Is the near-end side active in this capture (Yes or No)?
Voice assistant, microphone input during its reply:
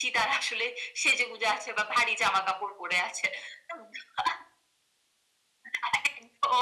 No